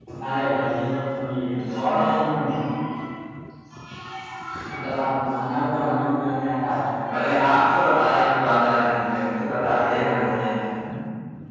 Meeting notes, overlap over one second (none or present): none